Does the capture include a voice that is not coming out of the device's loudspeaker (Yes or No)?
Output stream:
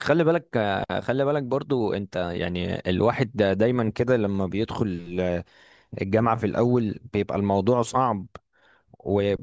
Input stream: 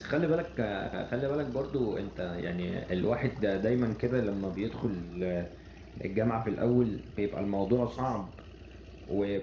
No